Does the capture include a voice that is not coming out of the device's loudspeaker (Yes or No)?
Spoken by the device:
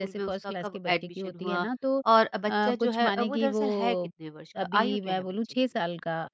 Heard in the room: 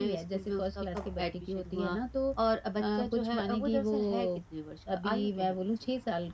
No